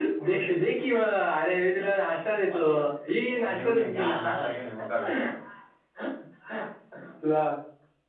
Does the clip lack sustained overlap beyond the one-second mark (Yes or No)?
No